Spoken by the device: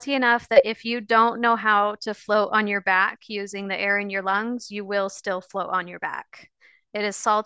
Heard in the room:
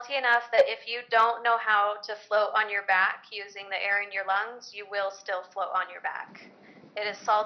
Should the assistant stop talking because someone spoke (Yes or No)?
No